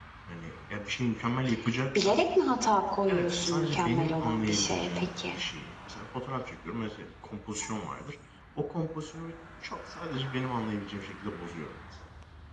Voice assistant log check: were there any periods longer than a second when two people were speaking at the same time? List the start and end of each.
3.1-5.3

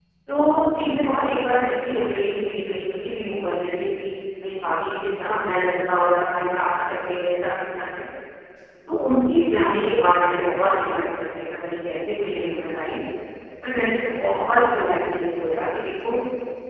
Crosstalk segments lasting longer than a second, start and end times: none

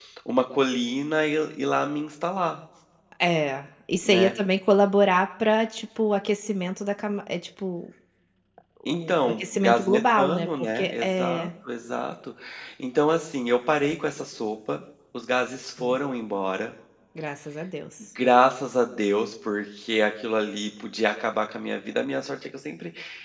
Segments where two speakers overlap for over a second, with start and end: 8.8-11.5

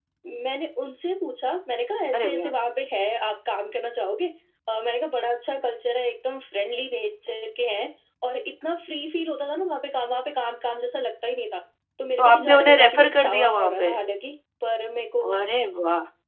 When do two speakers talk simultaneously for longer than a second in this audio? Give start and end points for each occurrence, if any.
12.2-14.0

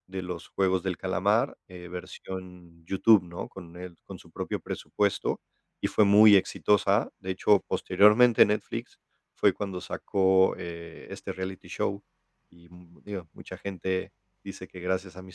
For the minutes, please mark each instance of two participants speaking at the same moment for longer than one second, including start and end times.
none

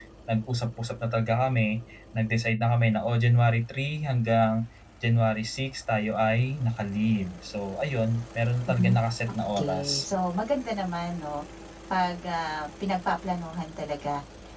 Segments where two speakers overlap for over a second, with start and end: none

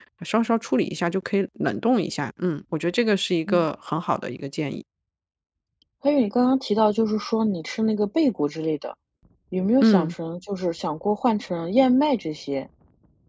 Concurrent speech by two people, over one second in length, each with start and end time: none

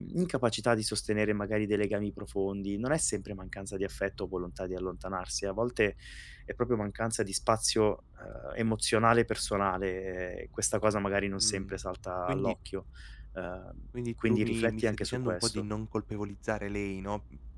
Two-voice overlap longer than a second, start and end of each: 14.3-15.6

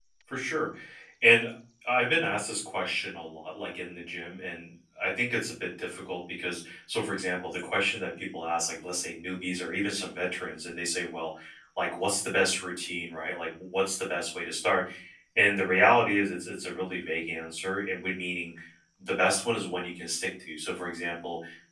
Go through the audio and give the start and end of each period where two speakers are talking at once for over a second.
none

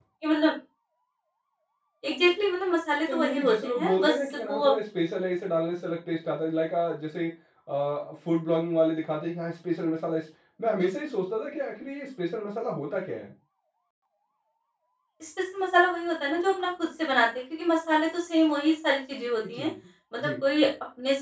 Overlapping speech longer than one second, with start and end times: 3.1-4.7

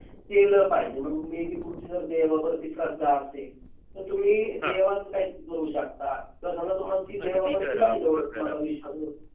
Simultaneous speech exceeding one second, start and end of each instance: 7.2-8.6

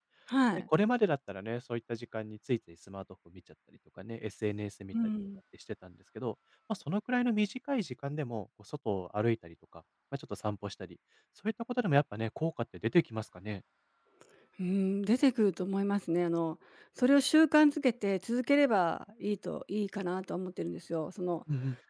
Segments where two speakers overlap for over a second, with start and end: none

